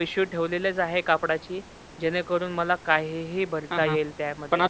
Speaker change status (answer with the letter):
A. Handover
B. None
A